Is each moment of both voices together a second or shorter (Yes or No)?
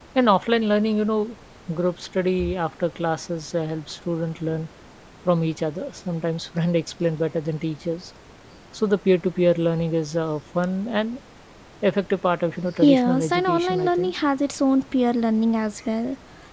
No